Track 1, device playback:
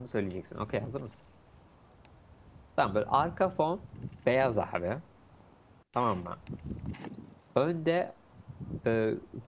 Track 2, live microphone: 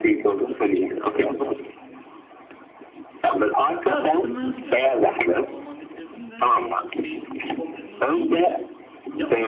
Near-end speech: present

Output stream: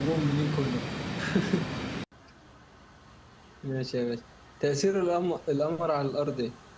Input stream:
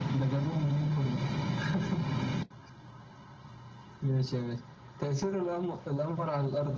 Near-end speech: none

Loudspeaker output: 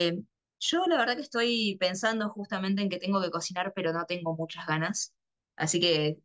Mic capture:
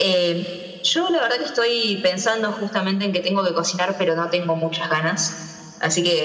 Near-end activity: none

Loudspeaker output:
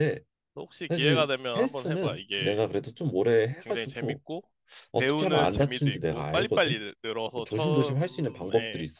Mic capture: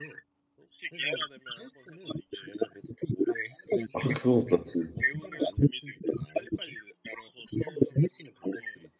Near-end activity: present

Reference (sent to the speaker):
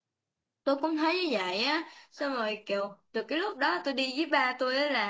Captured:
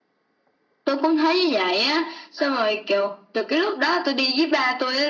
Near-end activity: none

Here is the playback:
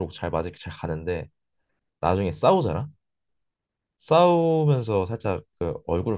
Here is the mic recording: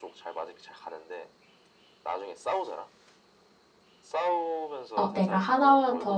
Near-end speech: present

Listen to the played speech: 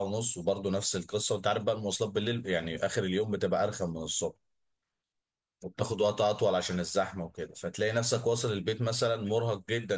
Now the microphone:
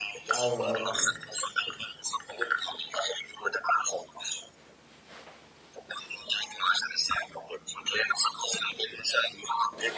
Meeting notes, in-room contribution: present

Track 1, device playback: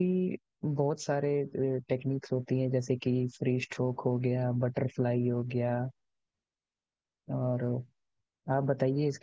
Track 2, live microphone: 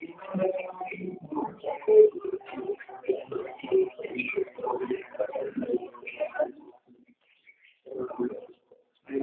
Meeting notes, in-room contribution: none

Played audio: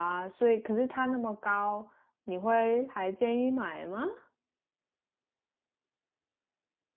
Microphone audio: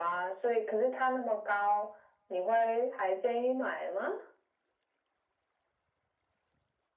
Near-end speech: none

